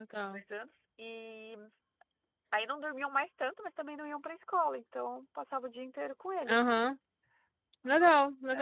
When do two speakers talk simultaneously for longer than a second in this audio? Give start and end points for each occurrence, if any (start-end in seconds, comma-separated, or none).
none